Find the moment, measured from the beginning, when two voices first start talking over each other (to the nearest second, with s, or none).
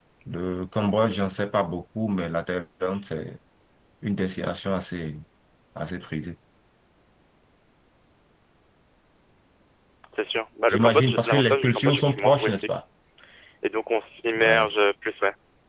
11 s